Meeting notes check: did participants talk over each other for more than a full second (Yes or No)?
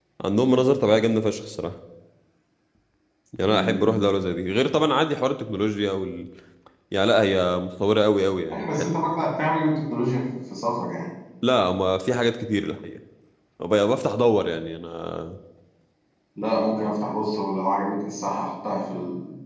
No